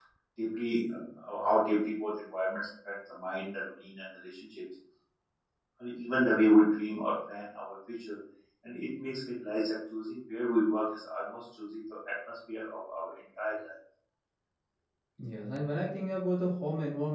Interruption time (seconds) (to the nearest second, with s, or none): none